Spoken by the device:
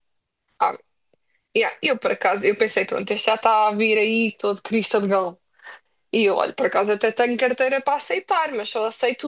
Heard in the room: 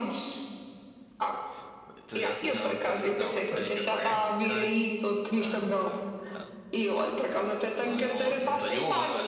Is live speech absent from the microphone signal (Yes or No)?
No